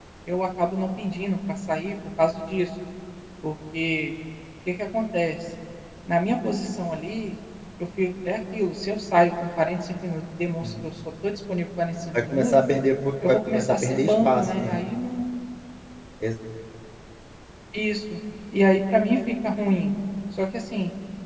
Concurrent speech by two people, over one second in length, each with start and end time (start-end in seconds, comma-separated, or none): 13.3-14.8